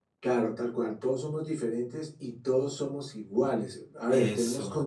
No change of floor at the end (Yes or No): Yes